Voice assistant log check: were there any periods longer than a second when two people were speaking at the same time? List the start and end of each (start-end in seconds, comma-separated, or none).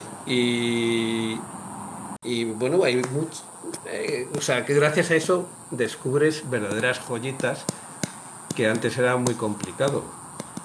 none